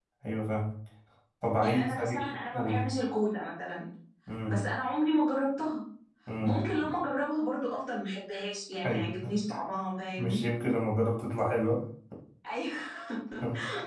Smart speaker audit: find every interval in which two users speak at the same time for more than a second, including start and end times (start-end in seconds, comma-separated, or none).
1.6-2.9